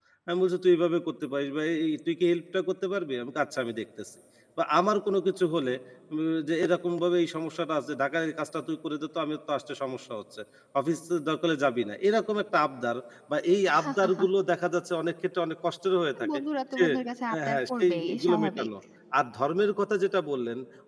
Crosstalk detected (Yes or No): Yes